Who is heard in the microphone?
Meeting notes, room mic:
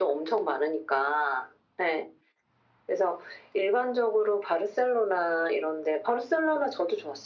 echo only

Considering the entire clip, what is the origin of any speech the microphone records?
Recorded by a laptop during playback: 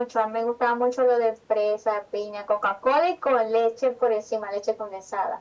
echo only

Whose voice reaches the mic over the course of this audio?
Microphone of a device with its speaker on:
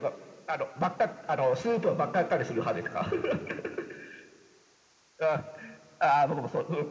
echo only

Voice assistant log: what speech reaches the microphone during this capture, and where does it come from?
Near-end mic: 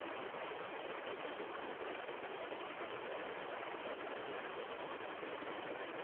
neither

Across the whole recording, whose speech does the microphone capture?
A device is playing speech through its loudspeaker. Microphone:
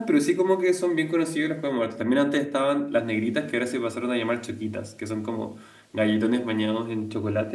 user only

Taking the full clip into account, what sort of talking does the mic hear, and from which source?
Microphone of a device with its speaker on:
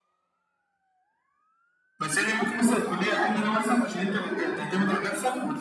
echo only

